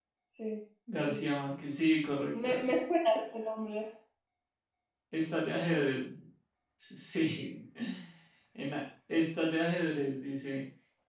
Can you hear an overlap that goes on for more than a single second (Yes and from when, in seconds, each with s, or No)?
No